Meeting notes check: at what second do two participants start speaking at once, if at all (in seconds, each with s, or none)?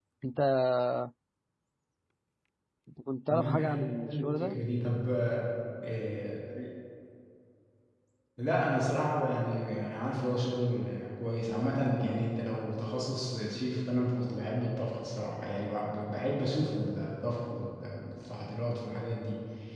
3.3 s